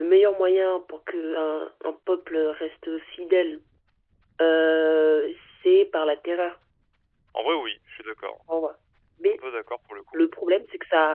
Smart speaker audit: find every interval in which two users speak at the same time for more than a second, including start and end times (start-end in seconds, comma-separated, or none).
none